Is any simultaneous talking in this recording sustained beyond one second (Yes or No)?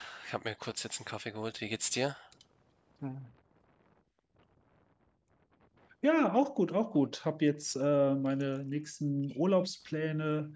No